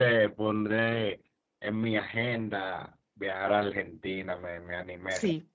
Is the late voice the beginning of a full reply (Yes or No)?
Yes